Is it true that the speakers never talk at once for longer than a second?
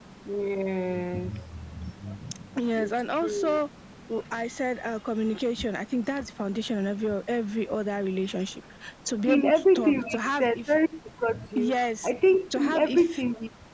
No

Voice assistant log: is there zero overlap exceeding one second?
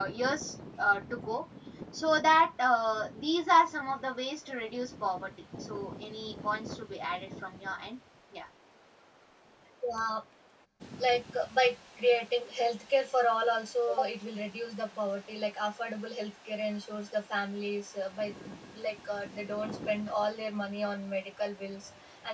Yes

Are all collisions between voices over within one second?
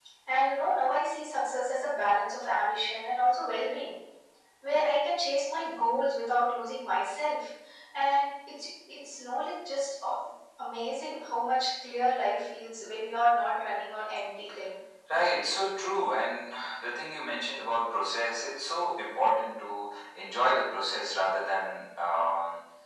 Yes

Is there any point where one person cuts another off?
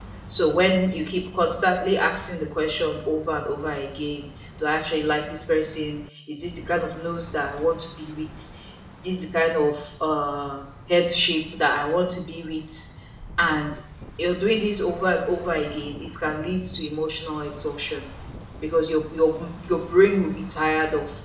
No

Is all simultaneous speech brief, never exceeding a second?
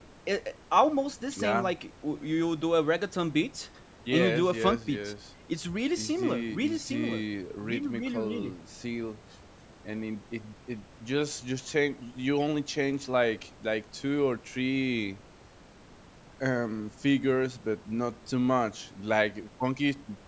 No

